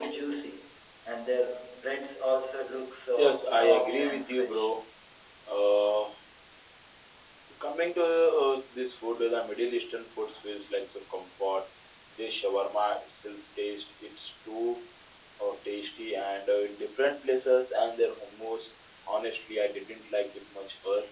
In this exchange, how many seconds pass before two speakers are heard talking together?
3.2 s

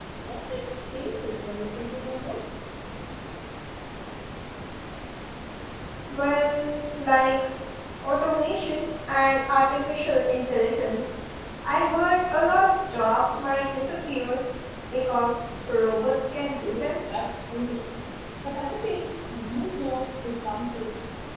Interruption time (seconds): none

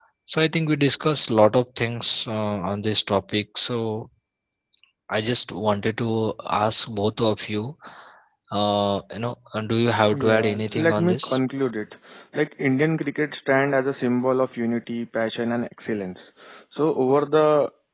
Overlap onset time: 10.1 s

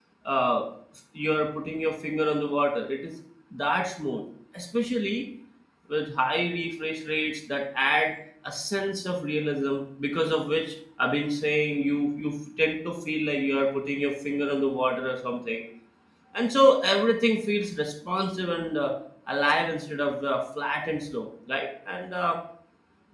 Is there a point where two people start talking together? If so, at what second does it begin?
none

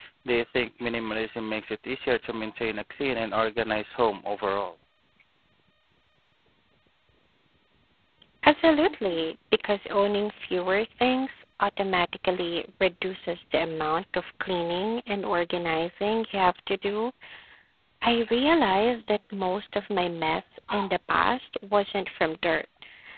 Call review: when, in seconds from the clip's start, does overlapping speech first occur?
none

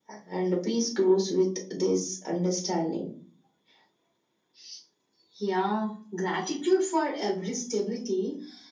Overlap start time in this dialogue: none

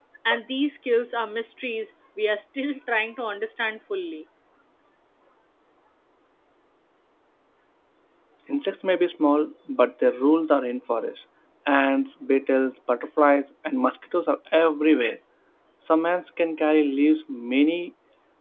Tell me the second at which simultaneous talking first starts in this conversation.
none

